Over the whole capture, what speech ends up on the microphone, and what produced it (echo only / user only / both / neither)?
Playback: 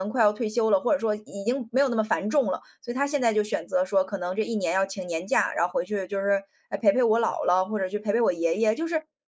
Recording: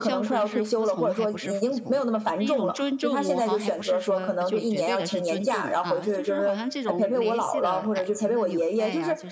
both